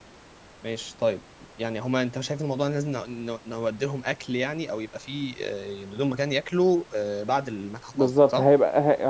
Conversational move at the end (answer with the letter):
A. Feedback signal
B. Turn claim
B